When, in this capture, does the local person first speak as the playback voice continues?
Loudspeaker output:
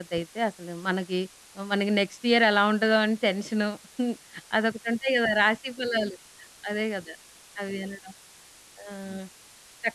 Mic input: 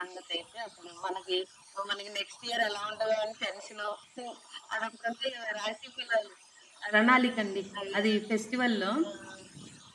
6.9 s

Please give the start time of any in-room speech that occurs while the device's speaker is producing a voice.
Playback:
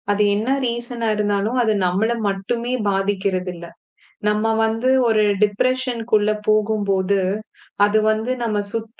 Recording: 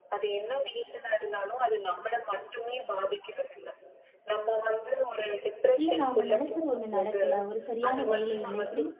5.8 s

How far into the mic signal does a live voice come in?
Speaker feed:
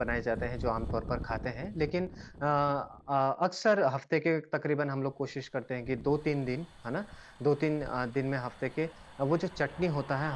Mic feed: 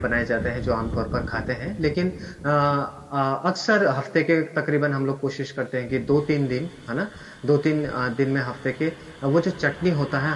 none

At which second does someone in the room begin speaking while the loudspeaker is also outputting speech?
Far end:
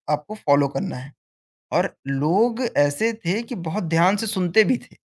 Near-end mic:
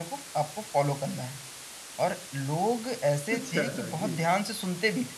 3.4 s

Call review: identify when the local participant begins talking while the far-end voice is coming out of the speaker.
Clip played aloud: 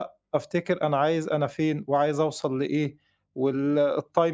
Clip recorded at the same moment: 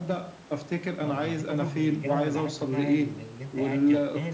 1.0 s

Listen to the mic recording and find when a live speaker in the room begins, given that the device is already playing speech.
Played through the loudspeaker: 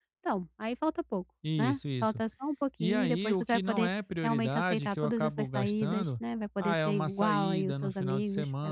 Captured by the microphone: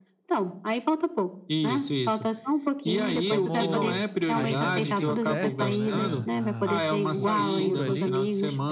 3.2 s

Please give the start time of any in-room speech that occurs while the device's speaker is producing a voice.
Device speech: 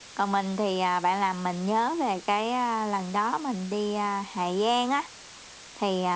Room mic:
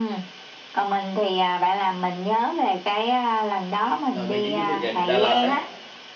4.1 s

